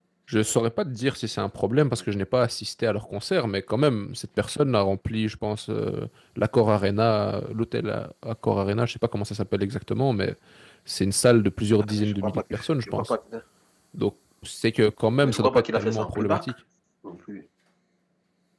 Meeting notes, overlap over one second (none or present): present